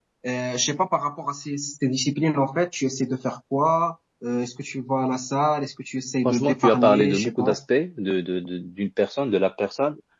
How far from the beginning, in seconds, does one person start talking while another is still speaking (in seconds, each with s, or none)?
6.2 s